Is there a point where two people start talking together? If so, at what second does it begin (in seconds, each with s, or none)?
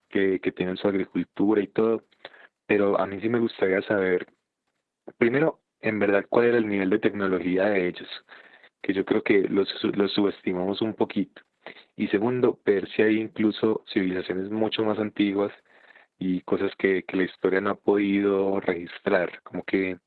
none